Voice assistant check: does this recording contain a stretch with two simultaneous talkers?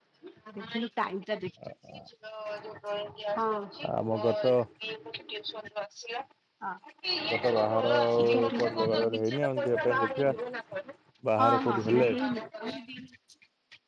Yes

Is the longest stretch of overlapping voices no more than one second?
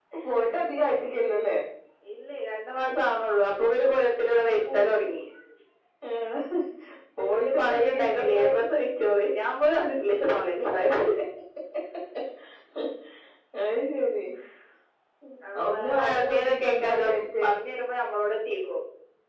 No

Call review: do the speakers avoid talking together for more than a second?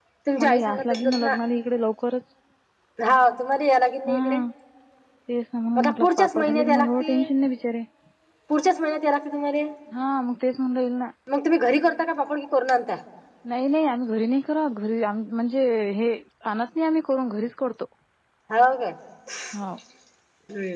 No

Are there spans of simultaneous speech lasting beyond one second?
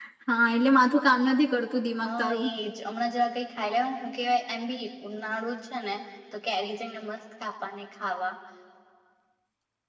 No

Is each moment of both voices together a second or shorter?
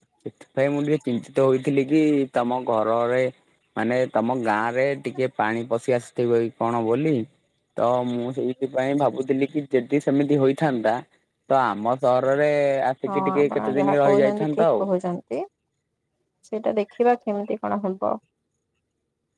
No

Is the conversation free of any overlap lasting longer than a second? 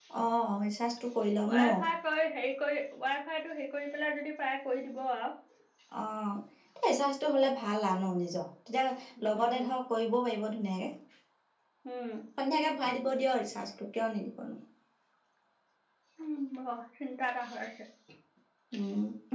Yes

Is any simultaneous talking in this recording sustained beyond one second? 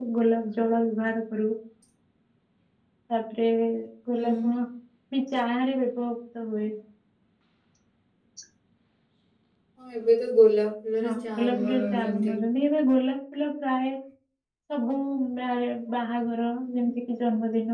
Yes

